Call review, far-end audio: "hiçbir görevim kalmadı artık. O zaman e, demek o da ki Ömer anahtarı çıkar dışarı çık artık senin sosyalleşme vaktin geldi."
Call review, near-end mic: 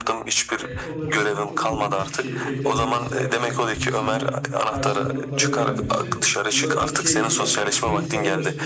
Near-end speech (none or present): present